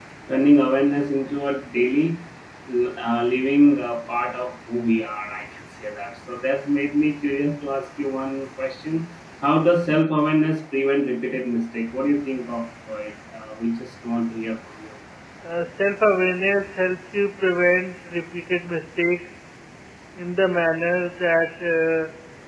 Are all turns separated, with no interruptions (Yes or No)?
Yes